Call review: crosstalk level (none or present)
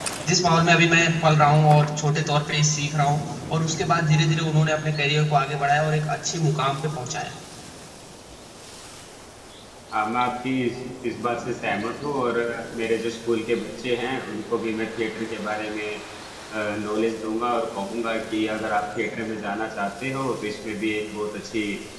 none